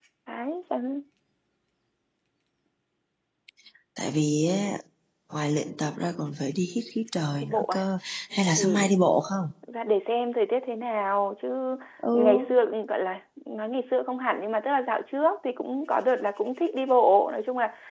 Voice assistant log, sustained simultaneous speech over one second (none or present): none